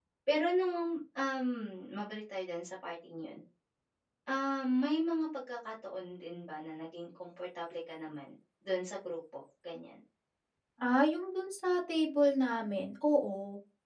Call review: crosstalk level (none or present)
none